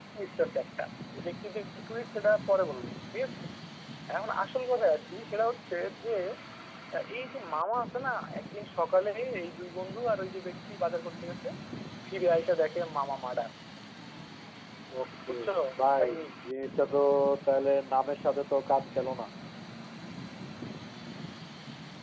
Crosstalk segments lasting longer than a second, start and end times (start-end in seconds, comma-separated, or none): none